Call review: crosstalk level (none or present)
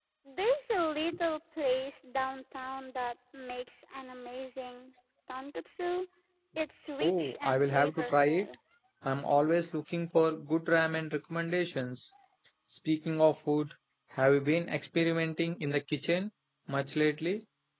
present